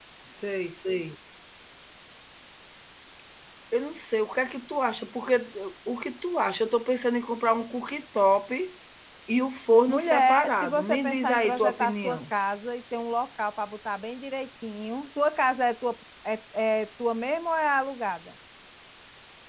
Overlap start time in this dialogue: 9.9 s

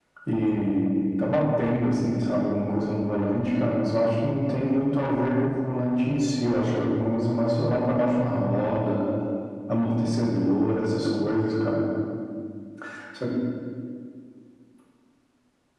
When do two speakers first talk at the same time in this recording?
none

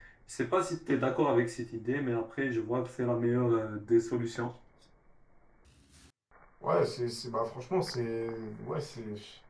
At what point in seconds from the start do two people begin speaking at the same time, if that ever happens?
none

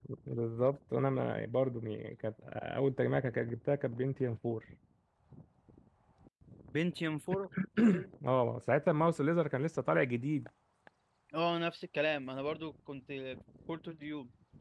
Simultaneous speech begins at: none

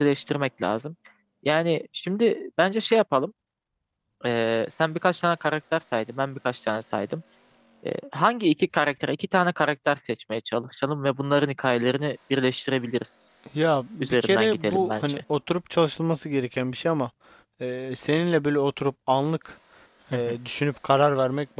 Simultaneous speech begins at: 14.0 s

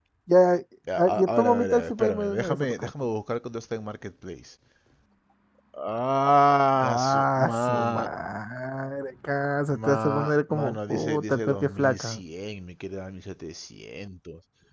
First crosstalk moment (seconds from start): 0.9 s

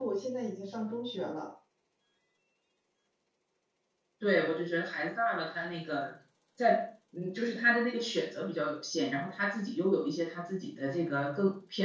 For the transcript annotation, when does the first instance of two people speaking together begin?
none

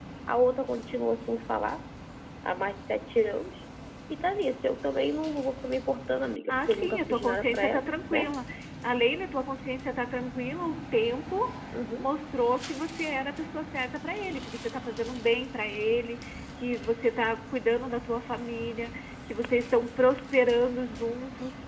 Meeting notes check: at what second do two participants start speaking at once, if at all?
6.5 s

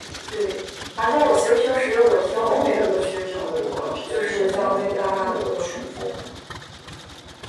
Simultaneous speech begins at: 2.3 s

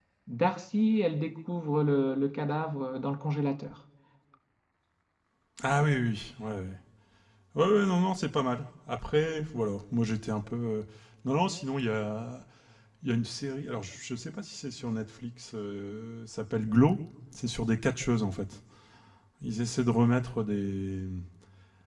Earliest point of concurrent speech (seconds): none

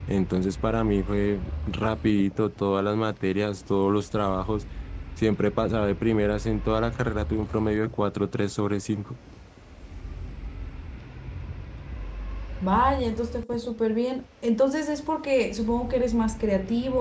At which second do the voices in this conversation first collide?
none

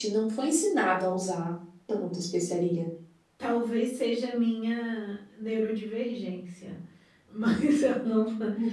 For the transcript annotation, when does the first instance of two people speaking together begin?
none

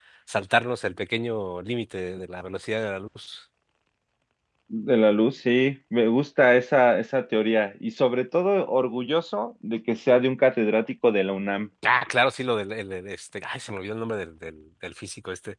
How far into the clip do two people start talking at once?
none

